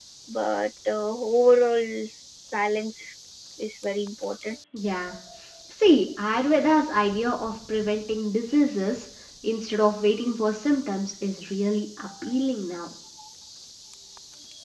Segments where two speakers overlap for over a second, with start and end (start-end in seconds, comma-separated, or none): none